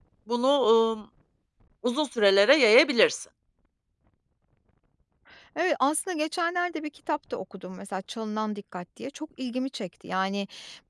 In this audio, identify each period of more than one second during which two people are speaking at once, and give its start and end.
none

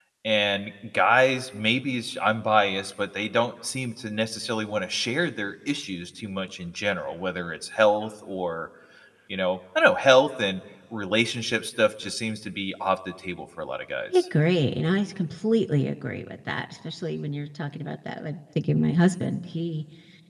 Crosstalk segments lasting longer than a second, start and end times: none

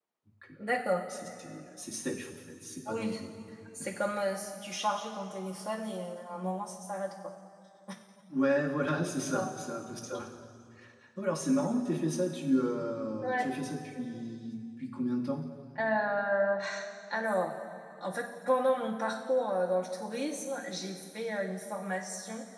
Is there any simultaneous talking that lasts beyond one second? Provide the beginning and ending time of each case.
none

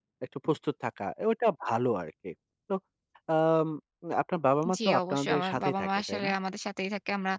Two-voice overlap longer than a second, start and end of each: 4.8-6.3

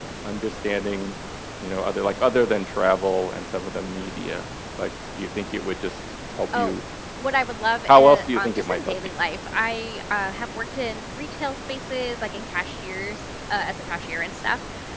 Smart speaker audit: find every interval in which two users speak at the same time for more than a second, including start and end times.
7.9-9.1

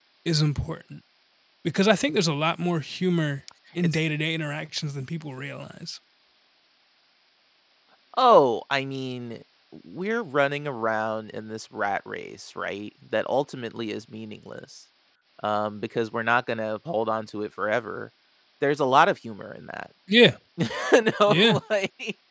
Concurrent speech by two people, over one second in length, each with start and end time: none

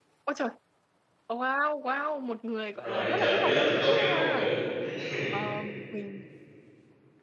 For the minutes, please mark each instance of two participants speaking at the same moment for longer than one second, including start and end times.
2.7-4.5

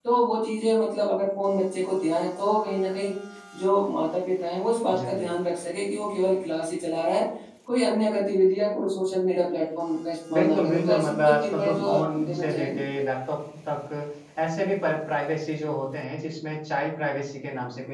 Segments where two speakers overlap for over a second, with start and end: 10.3-12.8

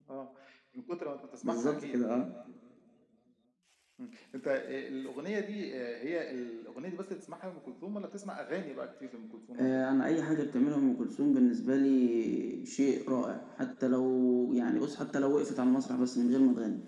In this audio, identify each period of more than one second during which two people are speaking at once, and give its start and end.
none

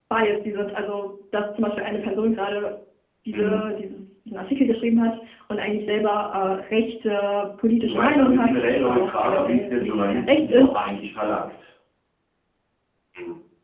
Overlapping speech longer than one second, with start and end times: 7.9-10.7

